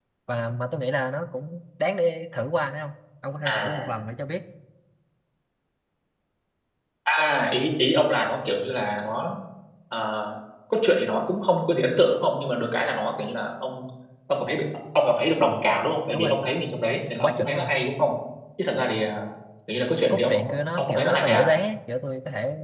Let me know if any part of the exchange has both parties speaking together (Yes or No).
Yes